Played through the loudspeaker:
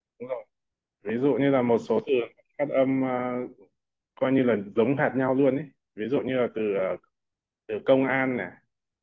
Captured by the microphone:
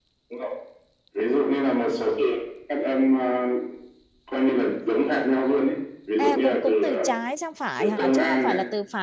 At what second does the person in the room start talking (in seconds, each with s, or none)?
6.2 s